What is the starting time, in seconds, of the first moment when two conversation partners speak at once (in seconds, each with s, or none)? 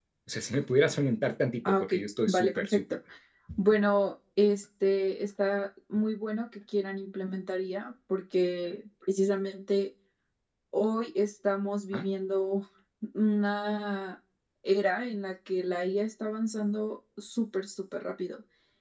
1.6 s